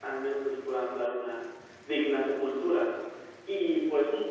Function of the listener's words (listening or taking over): taking over